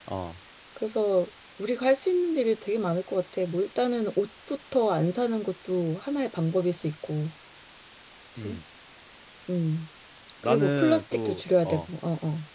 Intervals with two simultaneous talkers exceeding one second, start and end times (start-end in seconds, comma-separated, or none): 10.4-11.9